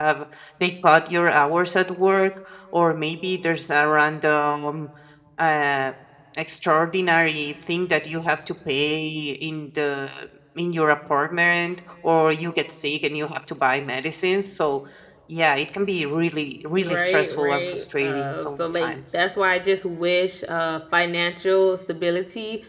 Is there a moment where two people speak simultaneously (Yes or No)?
Yes